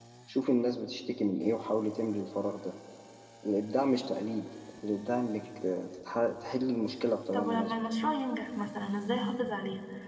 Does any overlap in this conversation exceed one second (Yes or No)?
No